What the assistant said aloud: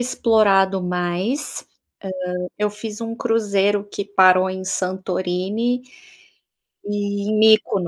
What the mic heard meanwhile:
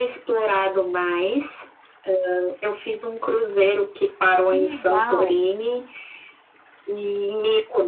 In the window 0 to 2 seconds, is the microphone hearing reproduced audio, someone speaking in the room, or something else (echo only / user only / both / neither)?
echo only